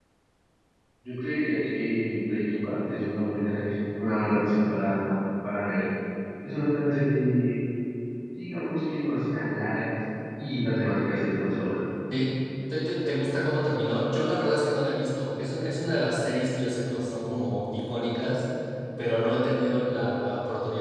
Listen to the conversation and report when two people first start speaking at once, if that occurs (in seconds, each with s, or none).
none